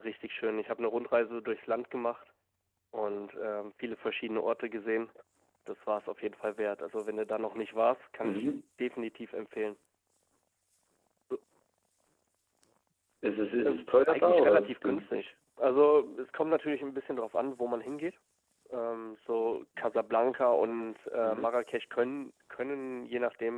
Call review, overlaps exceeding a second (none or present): present